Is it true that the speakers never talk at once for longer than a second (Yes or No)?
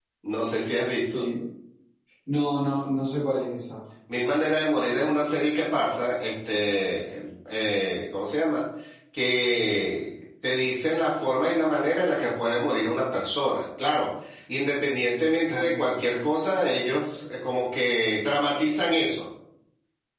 Yes